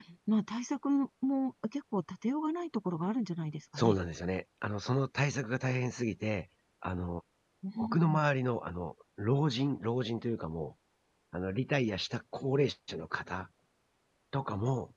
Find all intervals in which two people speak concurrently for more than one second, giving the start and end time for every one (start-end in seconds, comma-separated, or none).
none